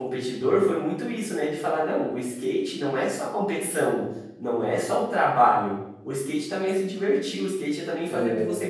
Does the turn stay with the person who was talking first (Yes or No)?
Yes